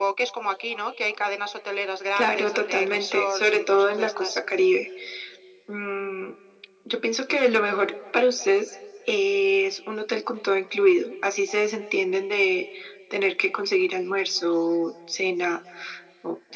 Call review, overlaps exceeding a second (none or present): present